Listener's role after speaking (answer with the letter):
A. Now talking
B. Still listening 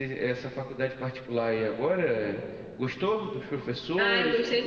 A